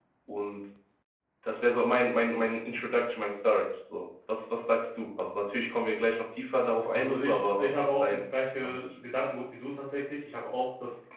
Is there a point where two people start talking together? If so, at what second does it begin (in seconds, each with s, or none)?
6.9 s